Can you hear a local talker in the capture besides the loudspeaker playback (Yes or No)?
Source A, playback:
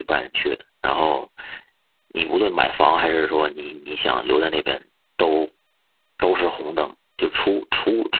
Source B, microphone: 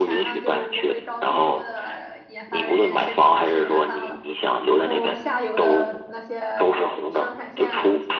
Yes